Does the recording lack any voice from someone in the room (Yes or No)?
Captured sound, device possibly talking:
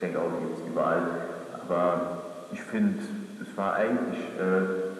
Yes